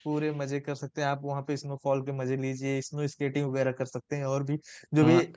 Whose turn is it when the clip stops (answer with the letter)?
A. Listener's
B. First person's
A